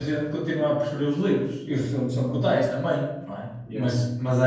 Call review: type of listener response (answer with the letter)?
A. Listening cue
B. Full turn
A